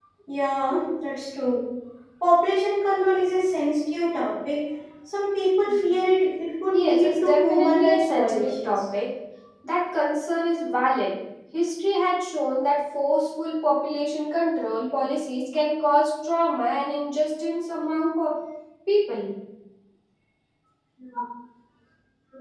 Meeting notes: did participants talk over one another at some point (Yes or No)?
Yes